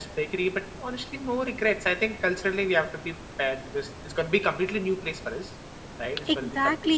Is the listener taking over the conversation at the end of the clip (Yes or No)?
Yes